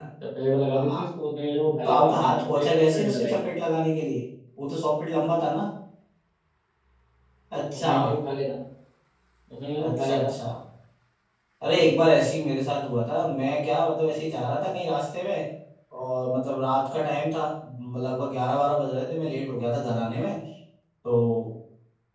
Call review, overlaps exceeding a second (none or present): present